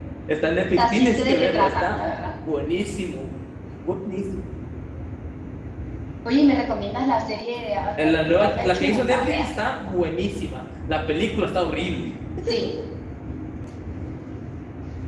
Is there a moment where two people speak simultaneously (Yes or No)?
Yes